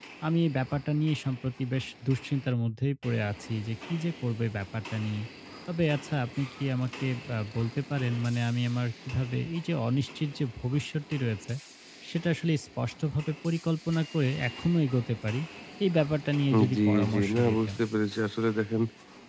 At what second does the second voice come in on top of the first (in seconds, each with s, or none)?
16.5 s